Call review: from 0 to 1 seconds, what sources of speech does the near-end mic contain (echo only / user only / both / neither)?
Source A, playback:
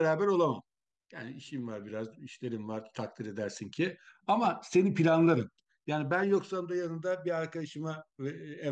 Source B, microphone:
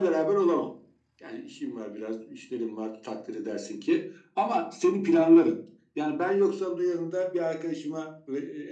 echo only